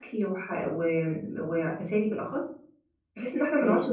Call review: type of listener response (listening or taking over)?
listening